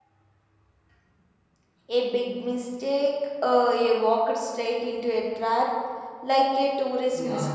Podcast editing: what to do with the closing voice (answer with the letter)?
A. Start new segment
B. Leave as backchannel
A